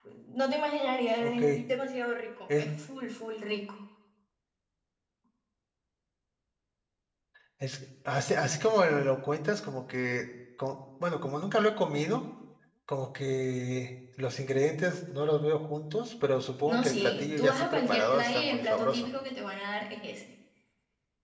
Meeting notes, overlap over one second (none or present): present